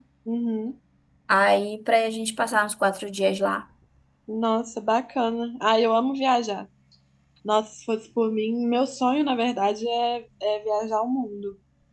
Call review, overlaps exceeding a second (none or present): none